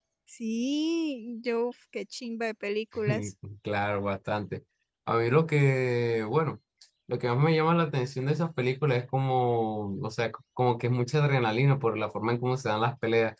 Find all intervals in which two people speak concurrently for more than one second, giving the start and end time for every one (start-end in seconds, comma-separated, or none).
none